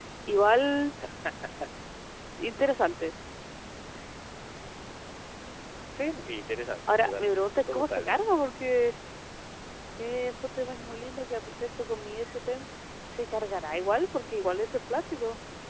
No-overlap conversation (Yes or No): No